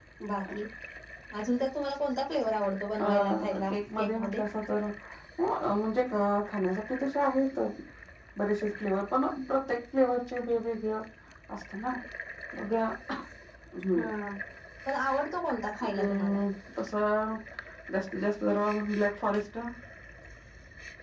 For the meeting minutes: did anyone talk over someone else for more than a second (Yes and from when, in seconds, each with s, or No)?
Yes, from 3.0 s